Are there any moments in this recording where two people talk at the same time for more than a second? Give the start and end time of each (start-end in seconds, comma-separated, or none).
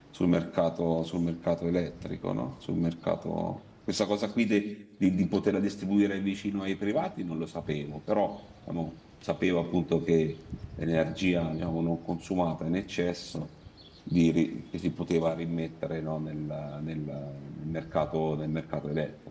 none